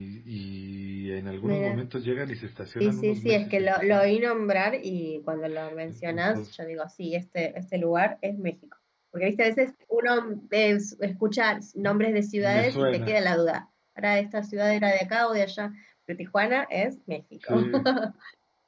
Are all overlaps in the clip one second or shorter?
No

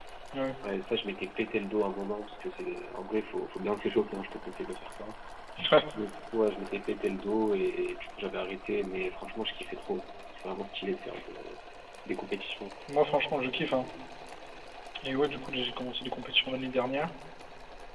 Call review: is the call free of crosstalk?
Yes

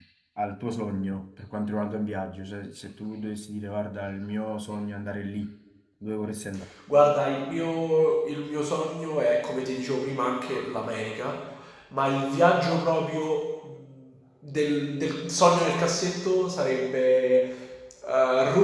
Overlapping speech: No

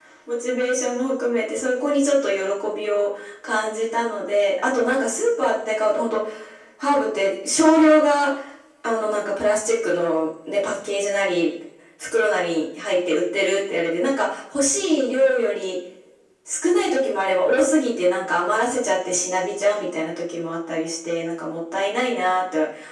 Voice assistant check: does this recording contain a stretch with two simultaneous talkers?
No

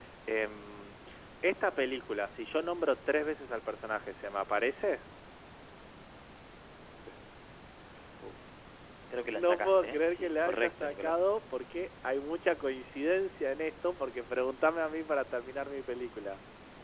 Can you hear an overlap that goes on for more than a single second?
Yes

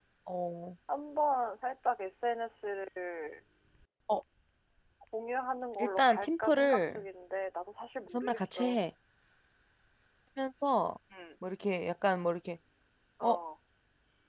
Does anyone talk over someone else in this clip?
Yes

